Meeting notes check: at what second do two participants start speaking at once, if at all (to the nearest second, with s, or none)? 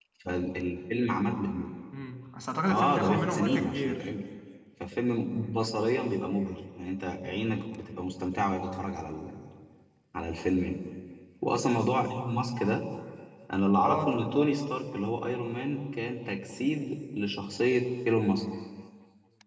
3 s